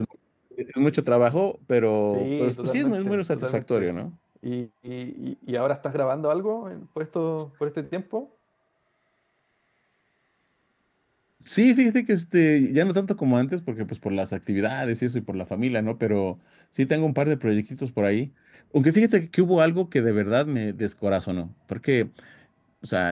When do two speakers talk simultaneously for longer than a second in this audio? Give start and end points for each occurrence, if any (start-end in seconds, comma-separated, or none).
2.1-3.9